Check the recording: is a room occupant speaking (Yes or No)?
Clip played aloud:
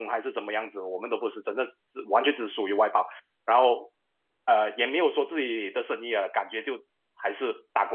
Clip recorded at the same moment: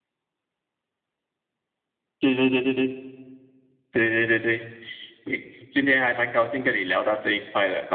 Yes